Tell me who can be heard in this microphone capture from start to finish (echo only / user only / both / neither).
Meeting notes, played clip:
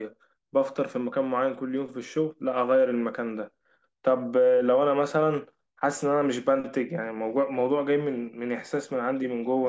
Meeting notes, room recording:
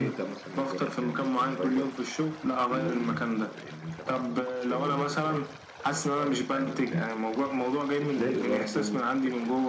both